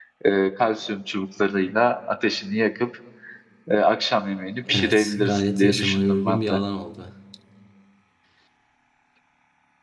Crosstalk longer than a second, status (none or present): present